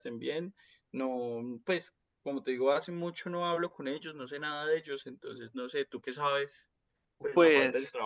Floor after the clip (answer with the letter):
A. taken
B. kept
A